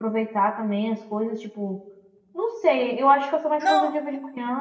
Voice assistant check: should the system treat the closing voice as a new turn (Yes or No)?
No